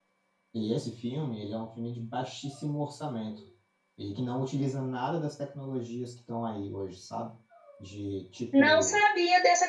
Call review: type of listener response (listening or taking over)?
taking over